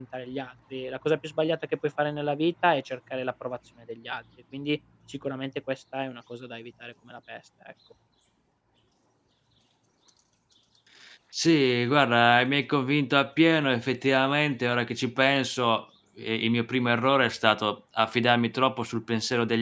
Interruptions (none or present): none